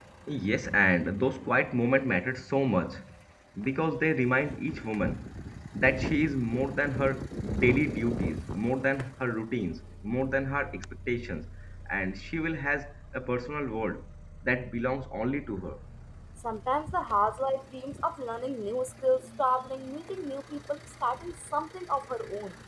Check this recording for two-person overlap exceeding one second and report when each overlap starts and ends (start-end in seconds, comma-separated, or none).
none